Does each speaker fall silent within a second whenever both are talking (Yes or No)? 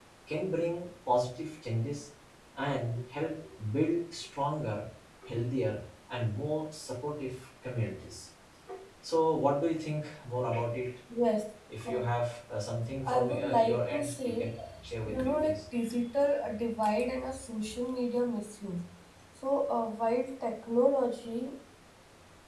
No